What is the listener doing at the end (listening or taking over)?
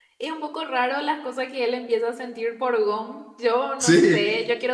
listening